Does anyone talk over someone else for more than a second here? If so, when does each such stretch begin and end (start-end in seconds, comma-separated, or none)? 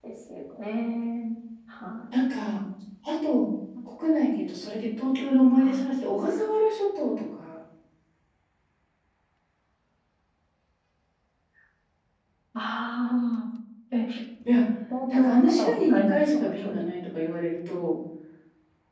15.1-16.8